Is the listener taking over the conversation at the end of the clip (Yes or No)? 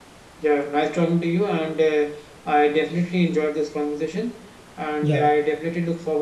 No